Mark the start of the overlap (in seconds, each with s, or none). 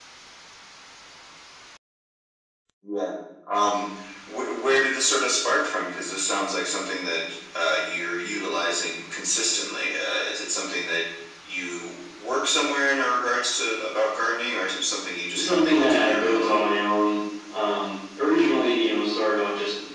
15.3 s